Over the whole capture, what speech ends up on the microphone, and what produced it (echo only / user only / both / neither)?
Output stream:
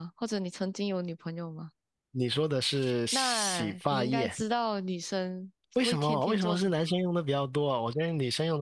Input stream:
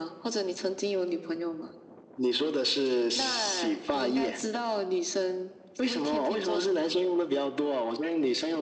echo only